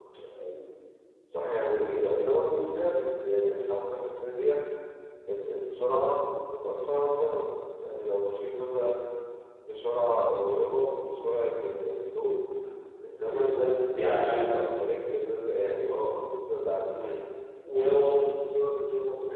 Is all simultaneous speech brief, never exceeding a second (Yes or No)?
No